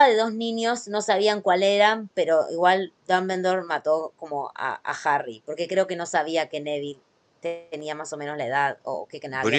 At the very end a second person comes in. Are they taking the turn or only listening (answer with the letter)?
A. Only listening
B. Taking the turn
B